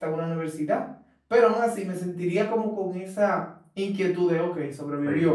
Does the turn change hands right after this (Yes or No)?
Yes